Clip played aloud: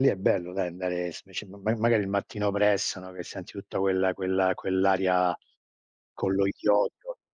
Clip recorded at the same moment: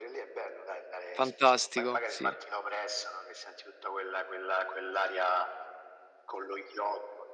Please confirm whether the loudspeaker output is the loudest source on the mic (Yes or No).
No